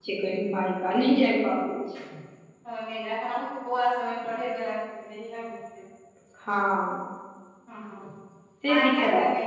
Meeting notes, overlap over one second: none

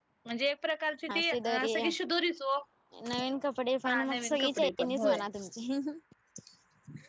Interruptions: present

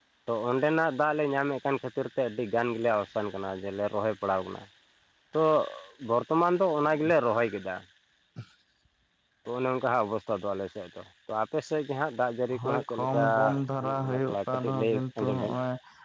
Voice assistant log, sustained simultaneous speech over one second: present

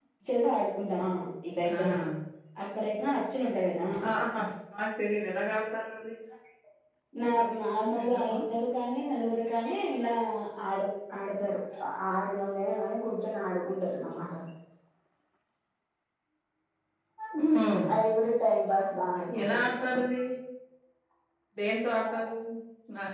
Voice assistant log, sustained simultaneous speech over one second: none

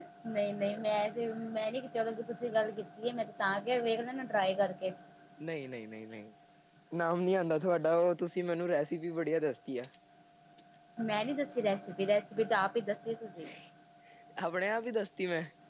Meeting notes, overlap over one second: none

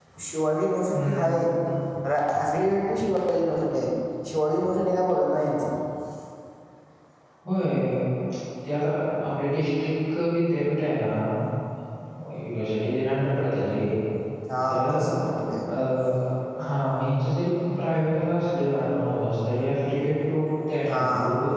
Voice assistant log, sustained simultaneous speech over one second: none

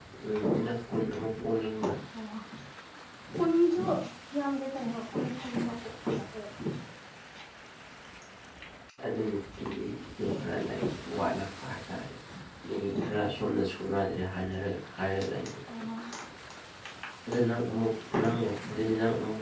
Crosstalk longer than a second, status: none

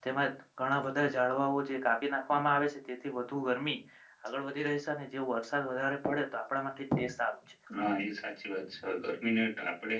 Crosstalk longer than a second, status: none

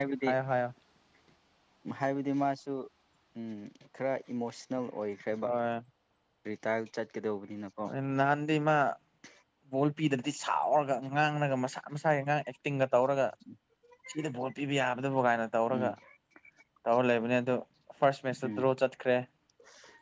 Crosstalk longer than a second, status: none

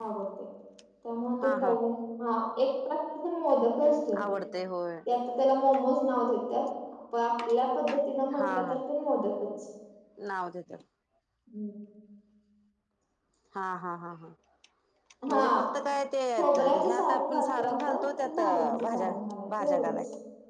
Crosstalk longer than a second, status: present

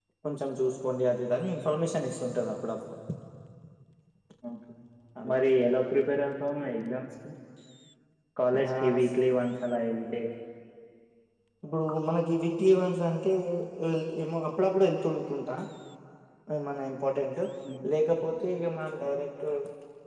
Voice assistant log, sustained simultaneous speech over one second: none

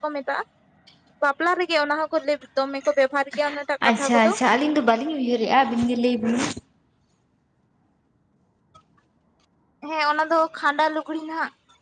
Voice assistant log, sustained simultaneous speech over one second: none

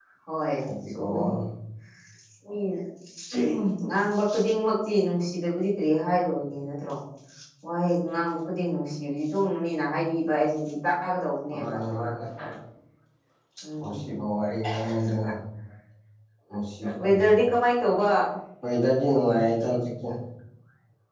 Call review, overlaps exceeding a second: none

